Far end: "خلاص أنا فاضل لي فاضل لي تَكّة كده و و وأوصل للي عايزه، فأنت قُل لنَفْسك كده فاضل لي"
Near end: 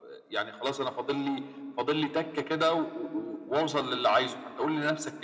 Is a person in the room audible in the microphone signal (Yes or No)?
No